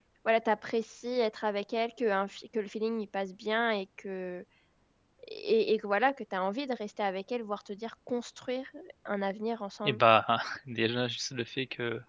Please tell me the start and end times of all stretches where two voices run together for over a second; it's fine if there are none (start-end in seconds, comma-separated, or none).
none